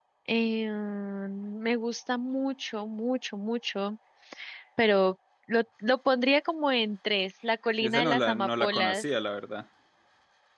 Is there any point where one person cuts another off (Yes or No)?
Yes